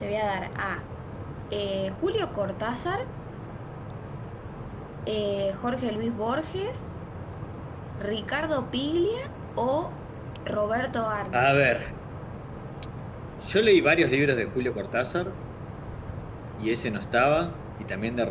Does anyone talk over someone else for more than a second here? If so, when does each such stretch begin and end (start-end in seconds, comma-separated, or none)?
none